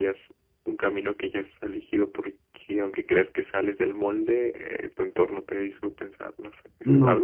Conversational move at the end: taking over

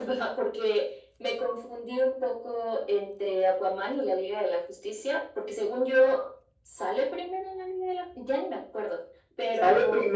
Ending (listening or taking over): taking over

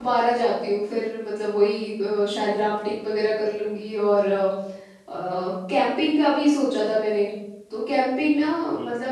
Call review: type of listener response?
listening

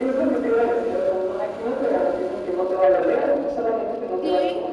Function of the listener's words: taking over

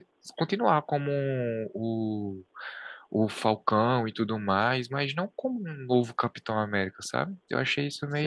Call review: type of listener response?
taking over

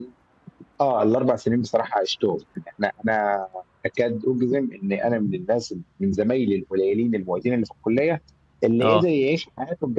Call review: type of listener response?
listening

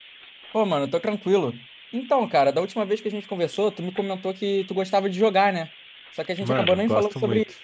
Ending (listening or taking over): taking over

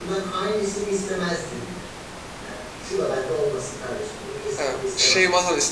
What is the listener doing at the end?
taking over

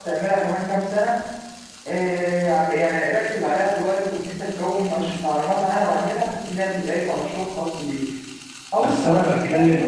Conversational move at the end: taking over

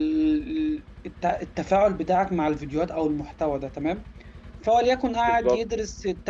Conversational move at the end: listening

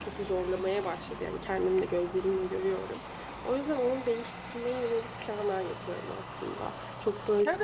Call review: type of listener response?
taking over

